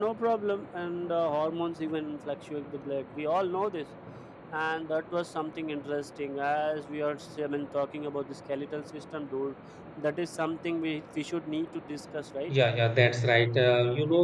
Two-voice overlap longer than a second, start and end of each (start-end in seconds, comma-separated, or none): none